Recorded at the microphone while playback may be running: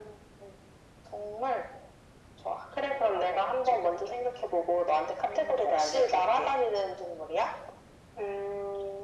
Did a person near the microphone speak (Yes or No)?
No